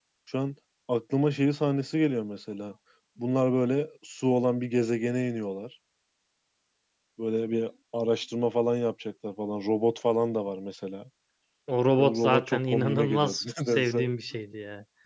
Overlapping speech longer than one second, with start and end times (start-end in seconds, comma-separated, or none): 12.0-14.1